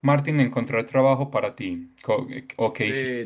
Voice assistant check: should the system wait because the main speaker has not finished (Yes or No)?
No